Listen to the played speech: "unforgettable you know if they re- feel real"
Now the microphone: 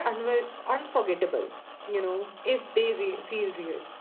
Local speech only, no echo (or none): none